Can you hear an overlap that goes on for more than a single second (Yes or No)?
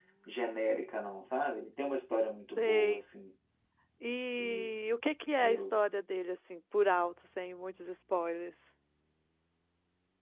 No